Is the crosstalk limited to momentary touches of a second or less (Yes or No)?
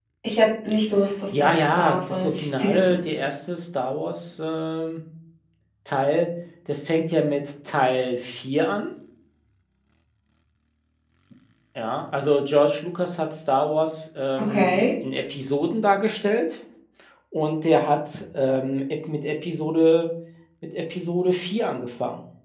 No